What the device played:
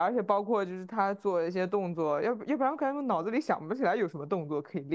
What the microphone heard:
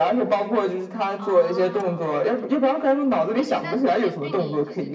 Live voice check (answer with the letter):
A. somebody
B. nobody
A